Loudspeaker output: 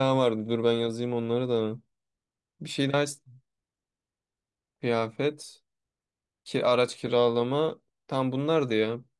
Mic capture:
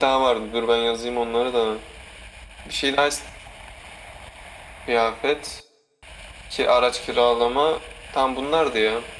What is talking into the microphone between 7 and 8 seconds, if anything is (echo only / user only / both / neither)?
echo only